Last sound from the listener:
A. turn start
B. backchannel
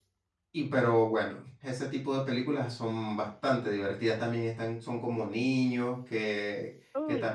B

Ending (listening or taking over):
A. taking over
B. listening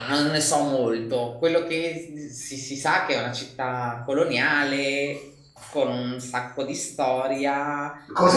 A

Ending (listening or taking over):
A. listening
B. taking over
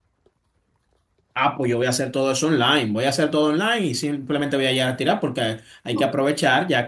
A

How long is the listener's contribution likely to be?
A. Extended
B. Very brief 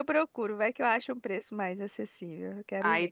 A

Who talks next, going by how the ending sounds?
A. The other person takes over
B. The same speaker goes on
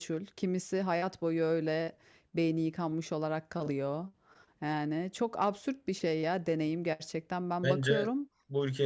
A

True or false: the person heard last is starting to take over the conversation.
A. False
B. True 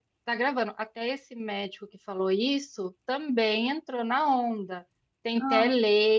A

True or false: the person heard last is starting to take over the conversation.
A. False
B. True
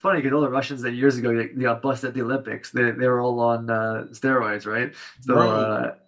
A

